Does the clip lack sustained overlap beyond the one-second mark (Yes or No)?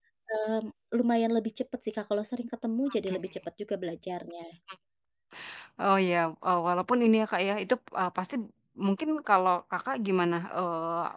Yes